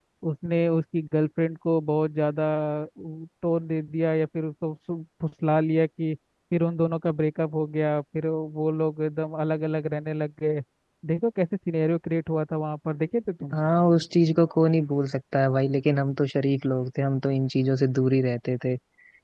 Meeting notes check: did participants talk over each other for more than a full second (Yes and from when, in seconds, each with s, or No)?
No